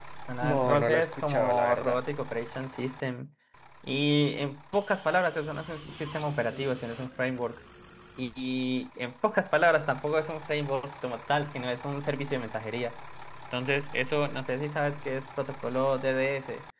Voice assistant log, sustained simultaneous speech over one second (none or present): present